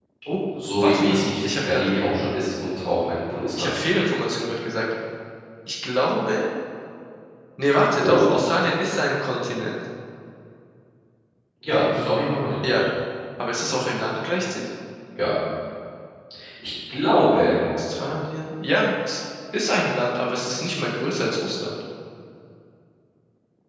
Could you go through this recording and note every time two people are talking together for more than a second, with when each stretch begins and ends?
0.5-1.9

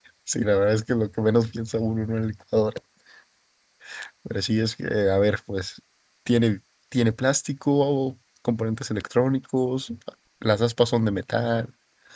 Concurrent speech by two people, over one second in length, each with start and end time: none

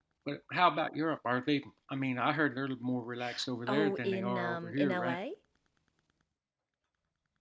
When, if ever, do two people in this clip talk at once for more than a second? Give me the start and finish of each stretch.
3.7-5.2

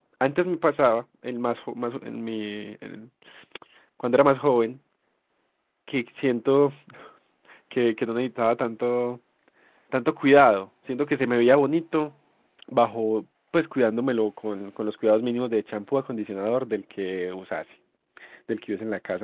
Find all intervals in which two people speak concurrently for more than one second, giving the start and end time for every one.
none

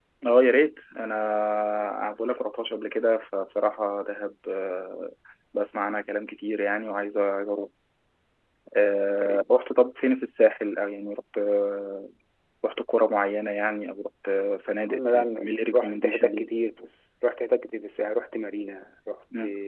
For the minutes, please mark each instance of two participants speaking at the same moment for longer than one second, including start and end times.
14.9-16.5

